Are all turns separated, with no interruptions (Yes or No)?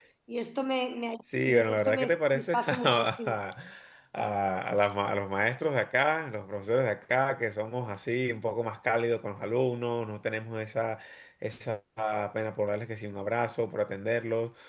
No